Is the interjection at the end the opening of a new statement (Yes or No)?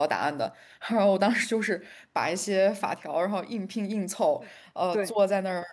No